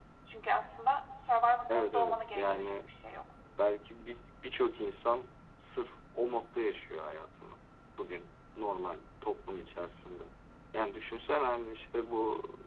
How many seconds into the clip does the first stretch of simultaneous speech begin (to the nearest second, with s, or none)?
2 s